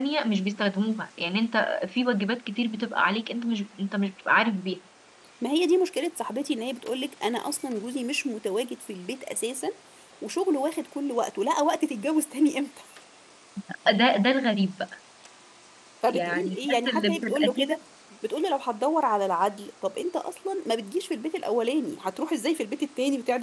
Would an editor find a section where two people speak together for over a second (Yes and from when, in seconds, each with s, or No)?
Yes, from 16.1 s